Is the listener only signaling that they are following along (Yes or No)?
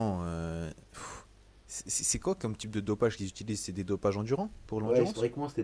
No